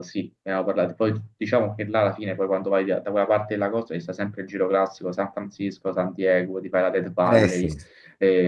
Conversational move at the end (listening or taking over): listening